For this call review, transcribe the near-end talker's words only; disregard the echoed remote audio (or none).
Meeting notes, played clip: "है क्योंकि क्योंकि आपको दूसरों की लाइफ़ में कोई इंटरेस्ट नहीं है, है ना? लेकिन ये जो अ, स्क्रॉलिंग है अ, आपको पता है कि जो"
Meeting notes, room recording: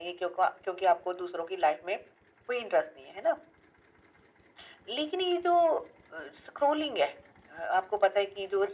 none